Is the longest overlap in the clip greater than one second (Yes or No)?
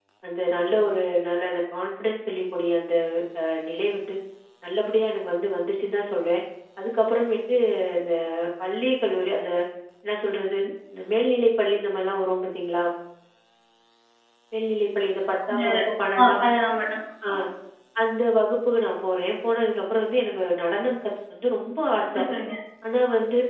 No